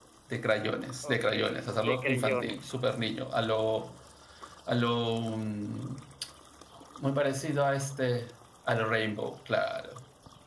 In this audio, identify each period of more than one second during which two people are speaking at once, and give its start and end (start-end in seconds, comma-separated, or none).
1.0-2.8